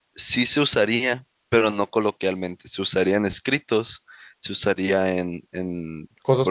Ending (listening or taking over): listening